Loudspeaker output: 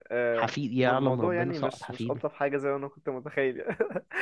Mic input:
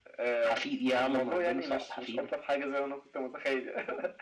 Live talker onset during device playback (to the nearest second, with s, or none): none